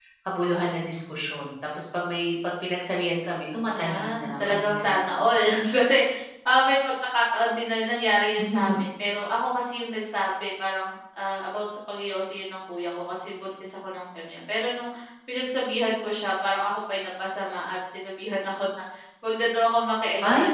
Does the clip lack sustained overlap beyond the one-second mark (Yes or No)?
No